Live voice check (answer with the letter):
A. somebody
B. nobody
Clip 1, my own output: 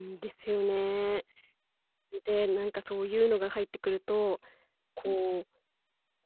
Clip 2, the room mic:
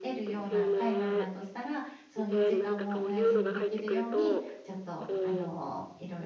A